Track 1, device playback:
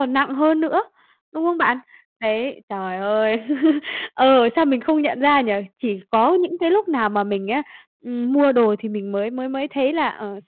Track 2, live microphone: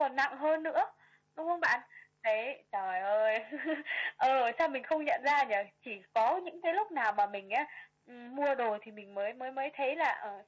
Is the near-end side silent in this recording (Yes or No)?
Yes